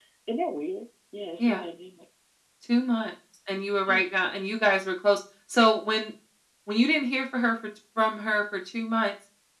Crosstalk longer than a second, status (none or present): none